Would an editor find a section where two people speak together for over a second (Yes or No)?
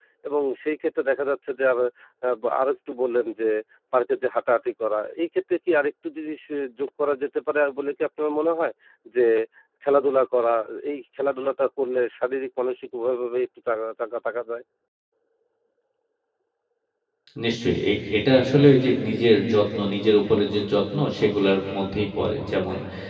No